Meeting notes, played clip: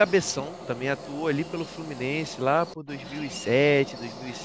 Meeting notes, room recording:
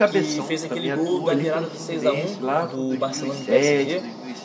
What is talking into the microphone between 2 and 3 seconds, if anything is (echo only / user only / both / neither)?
both